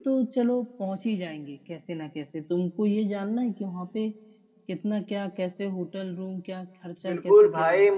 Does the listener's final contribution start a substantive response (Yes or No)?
Yes